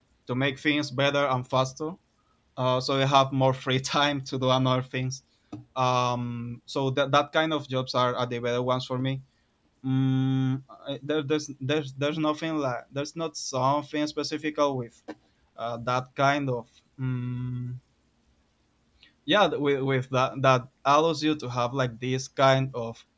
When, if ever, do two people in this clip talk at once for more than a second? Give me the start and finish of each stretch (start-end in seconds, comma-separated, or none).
none